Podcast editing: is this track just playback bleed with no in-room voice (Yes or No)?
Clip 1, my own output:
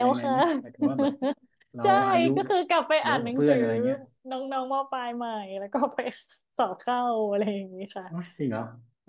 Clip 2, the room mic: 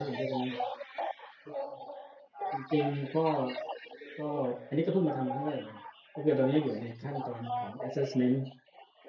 No